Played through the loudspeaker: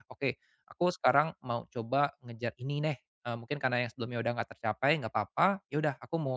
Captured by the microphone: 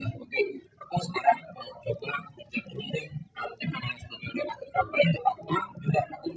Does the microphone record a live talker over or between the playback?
No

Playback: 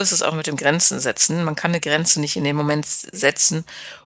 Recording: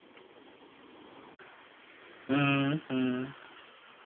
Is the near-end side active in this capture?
Yes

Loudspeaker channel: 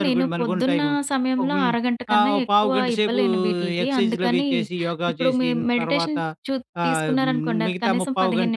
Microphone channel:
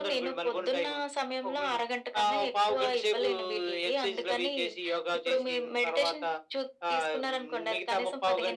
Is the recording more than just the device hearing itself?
No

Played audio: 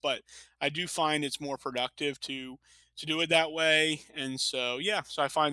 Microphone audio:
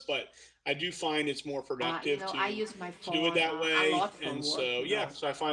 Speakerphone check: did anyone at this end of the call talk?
Yes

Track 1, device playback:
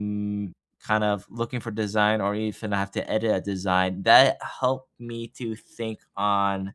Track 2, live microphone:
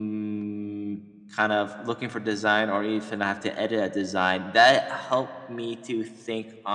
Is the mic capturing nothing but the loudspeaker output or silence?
Yes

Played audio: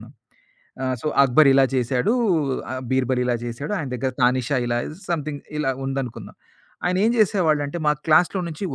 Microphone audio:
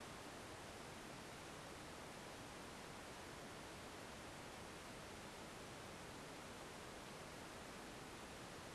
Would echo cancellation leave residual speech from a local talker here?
No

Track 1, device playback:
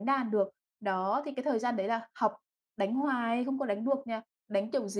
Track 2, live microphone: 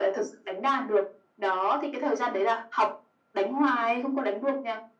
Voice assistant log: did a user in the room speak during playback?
No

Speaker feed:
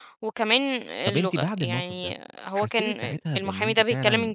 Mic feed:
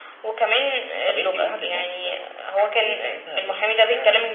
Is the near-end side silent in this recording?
Yes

